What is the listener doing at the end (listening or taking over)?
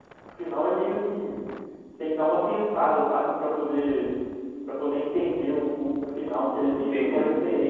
listening